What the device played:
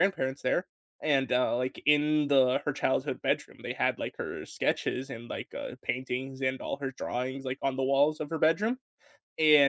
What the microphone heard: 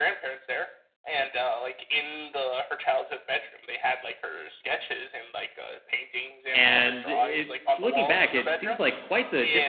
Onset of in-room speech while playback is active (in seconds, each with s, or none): 6.5 s